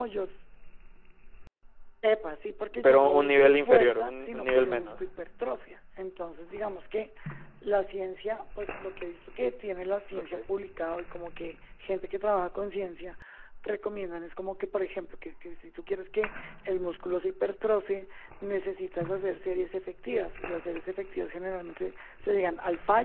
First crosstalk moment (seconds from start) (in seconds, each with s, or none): 2.8 s